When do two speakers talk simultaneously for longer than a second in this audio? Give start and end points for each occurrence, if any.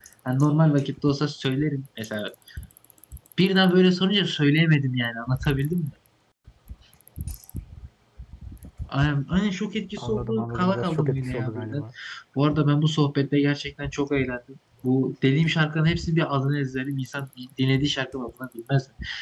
10.0-11.8

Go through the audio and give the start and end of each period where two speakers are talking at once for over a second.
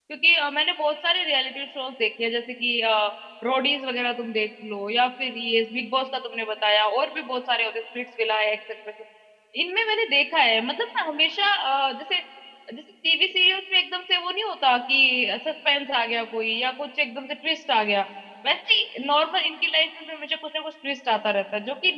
none

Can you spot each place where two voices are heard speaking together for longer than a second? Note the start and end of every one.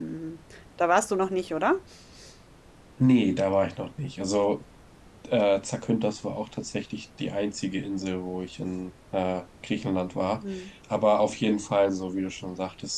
none

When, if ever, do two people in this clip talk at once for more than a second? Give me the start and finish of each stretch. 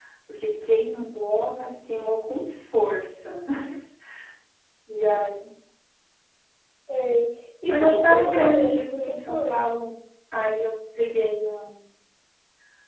7.7-9.6

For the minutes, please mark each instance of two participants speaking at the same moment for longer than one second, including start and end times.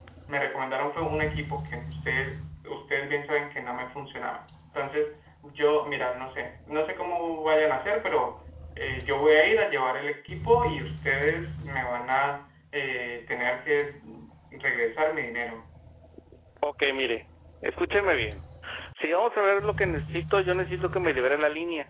none

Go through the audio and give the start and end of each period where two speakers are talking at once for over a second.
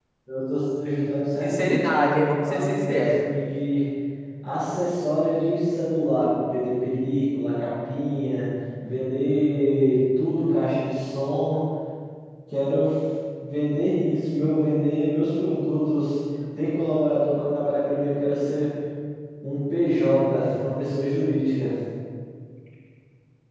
1.4-3.2

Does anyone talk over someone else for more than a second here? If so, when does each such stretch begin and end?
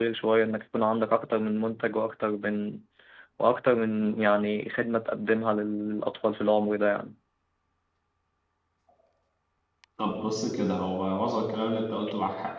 none

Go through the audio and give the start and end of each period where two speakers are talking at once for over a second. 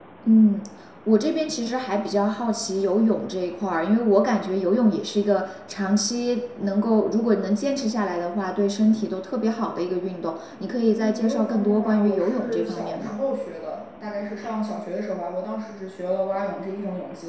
10.9-13.2

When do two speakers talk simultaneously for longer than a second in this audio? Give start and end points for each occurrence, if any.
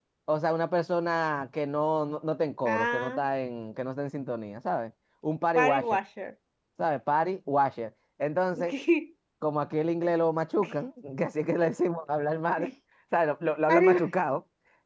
none

